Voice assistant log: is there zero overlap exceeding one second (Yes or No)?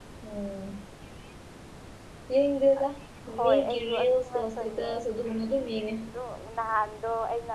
No